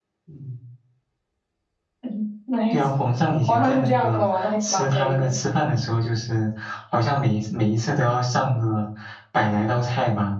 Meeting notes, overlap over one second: present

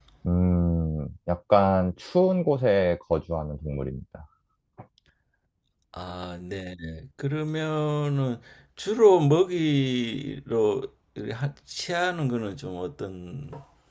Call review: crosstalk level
none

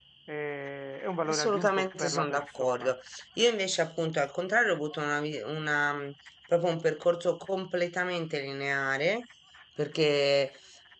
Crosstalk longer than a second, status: present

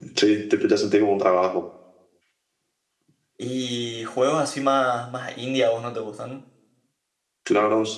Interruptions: none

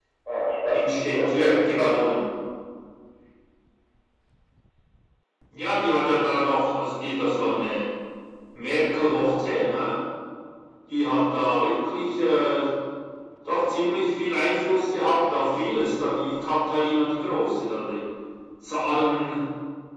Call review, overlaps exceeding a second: present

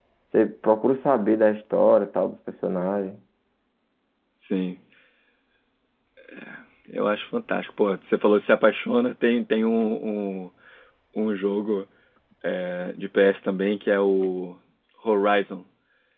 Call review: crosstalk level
none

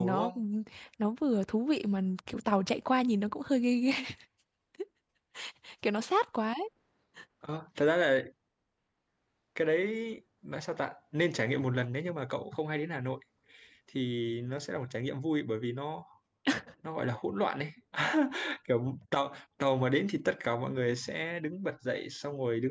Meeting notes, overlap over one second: none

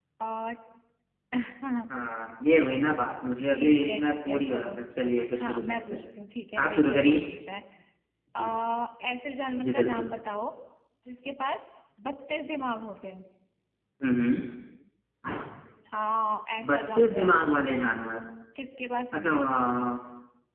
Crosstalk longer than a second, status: present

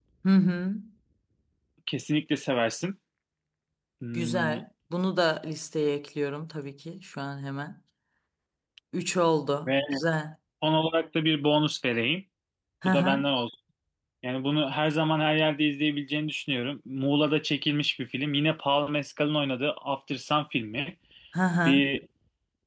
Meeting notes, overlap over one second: none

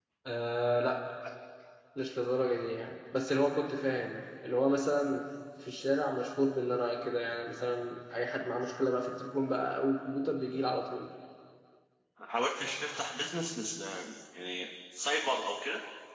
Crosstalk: none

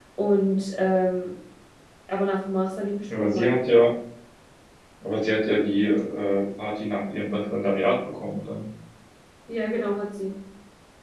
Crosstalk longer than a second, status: none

